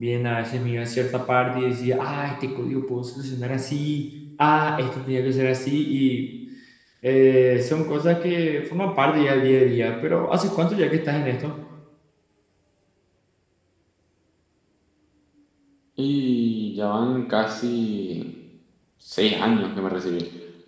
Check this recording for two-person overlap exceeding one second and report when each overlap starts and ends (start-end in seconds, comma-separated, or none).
none